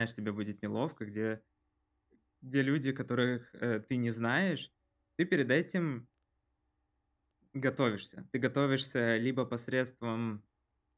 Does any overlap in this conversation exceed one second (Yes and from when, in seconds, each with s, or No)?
No